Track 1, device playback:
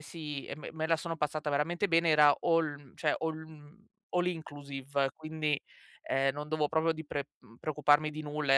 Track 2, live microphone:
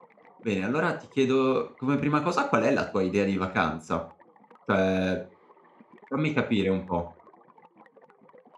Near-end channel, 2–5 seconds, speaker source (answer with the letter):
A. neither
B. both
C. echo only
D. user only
D